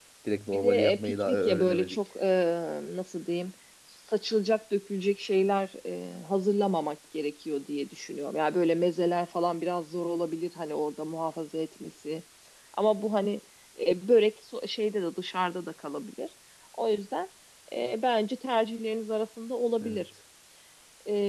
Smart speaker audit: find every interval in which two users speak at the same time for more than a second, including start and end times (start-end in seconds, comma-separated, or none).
0.5-2.0